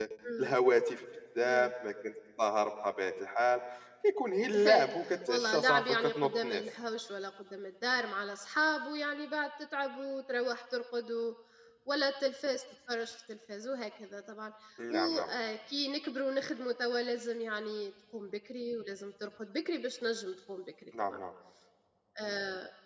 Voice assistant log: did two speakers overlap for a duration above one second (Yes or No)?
Yes